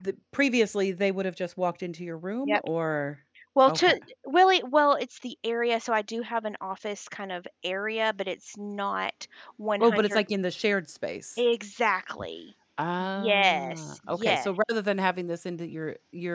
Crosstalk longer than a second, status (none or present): present